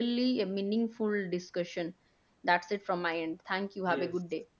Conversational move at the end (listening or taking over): taking over